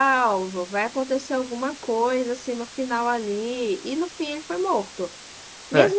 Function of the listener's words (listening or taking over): listening